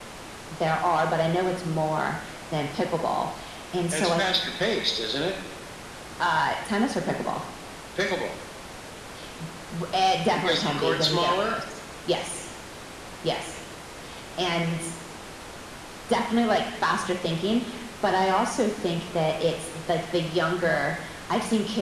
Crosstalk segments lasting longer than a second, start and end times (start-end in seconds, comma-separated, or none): 10.4-11.6